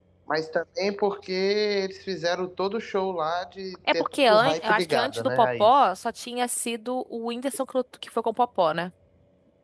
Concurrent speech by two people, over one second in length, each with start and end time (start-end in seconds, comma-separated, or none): 3.9-5.7